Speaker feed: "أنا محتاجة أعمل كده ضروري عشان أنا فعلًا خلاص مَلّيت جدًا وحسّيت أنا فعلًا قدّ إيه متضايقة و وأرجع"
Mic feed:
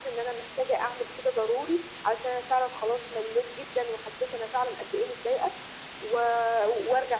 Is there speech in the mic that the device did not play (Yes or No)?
No